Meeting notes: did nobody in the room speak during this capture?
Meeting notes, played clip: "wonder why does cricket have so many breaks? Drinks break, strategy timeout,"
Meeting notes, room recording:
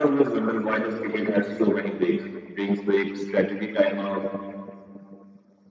Yes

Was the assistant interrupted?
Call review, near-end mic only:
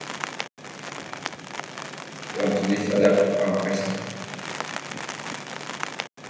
Yes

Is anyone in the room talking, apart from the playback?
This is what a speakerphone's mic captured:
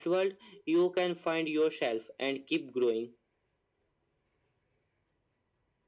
No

